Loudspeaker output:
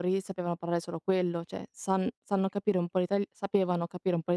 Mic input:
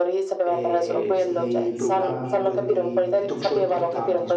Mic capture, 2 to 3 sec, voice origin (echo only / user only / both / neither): both